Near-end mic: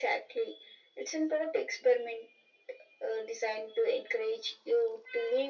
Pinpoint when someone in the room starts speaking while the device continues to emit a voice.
none

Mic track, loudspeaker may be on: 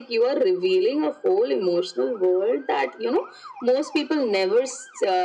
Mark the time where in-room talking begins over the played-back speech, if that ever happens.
none

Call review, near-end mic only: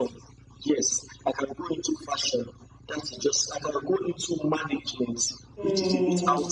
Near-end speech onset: 5.6 s

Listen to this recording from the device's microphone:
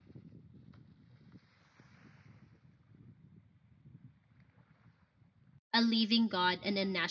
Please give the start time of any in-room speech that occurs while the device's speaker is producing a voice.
5.7 s

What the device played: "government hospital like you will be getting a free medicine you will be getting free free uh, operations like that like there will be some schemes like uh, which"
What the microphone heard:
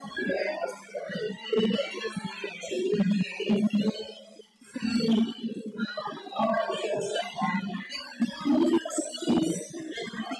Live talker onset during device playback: none

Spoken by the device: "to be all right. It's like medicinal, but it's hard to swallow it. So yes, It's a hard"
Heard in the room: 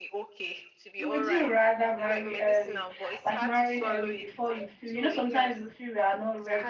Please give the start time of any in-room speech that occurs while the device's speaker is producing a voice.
1.0 s

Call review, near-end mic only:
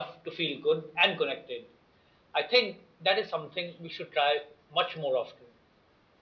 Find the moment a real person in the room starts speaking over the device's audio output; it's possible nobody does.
none

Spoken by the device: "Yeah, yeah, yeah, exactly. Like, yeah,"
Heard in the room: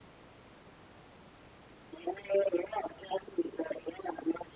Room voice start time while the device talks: none

